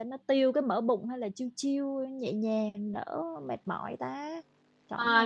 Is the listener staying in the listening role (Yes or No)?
No